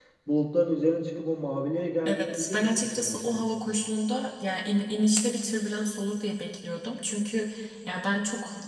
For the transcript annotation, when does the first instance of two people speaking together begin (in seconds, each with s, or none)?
2.0 s